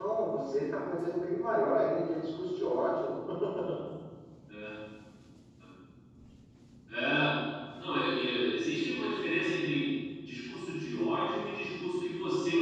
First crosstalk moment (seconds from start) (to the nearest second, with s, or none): none